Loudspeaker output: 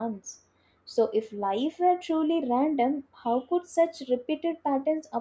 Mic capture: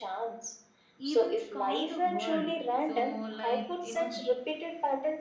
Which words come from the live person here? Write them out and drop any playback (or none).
events calm the world. So, like, you know,